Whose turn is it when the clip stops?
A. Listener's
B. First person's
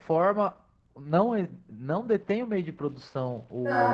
A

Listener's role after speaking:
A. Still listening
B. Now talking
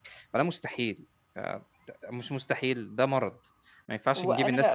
B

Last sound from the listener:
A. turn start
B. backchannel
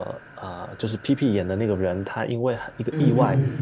B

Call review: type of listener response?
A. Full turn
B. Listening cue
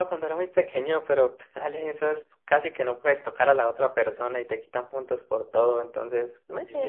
A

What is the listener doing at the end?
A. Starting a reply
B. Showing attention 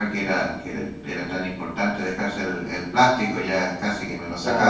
A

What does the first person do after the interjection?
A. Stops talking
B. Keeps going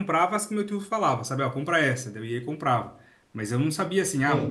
B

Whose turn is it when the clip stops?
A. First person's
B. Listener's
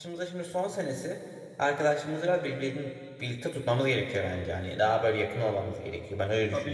B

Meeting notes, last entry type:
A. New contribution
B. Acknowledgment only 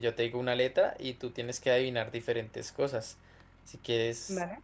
B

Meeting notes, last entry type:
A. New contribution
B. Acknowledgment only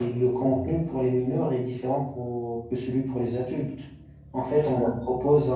B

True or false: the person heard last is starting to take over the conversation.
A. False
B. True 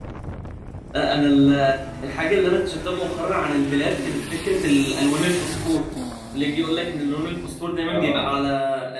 A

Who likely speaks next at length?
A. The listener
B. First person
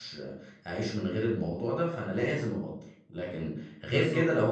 B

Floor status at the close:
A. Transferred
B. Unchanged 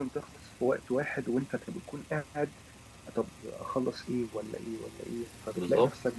B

